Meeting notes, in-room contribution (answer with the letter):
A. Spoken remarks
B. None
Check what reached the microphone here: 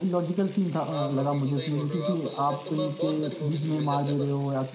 A